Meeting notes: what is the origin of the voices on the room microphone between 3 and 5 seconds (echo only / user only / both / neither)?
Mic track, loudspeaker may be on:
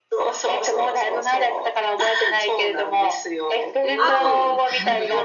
both